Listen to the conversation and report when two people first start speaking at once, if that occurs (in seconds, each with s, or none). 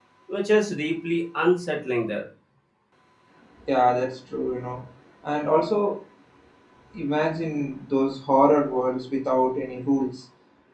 none